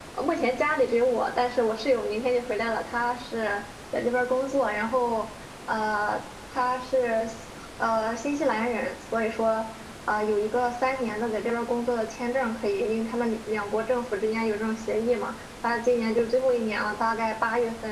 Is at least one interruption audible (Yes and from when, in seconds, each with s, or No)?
No